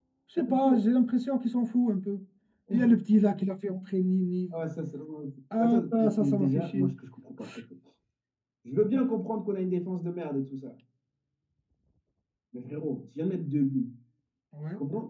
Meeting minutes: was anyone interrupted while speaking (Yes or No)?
Yes